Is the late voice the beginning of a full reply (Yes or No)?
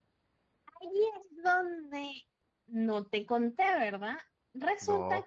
No